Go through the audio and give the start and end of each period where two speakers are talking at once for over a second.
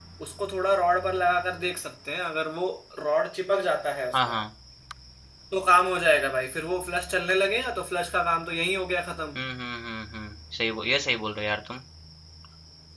none

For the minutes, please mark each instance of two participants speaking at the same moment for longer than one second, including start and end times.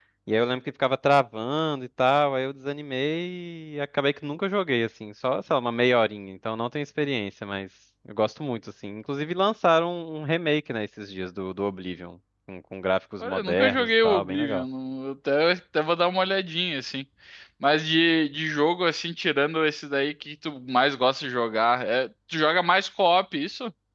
13.2-14.6

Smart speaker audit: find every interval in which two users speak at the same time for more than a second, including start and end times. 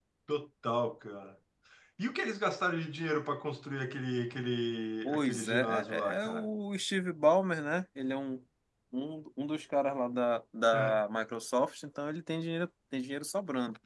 5.0-6.5

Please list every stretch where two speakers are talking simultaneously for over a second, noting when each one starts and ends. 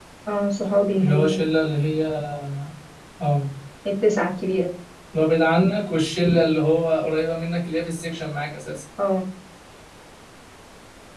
none

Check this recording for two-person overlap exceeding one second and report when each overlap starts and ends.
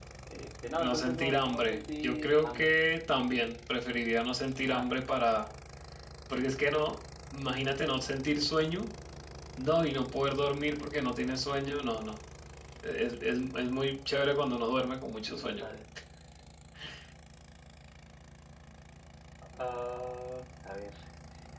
0.8-2.7

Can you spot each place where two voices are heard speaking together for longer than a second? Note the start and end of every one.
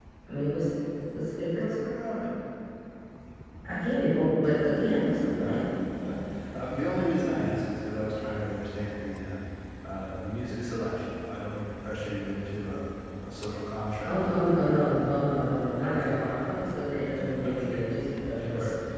none

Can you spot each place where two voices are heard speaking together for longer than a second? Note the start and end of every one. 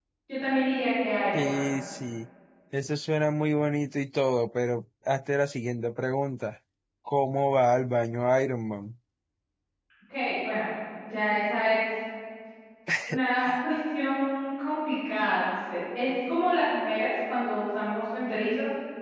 none

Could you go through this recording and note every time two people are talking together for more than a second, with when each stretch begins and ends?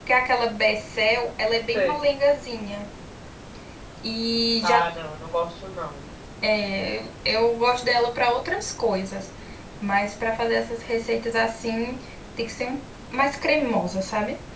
none

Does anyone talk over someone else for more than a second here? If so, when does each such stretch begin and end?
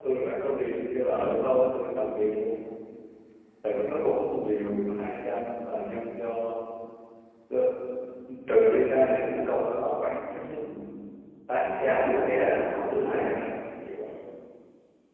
11.8-13.3

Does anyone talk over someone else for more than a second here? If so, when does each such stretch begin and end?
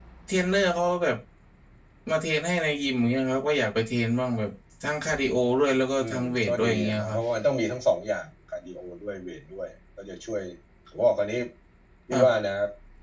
6.0-7.2

